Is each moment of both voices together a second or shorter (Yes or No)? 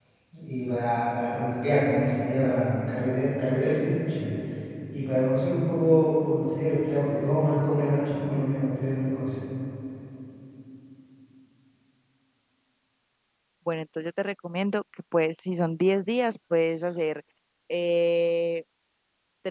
Yes